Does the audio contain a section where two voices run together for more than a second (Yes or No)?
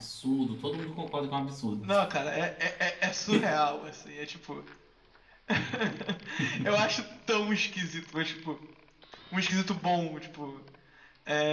No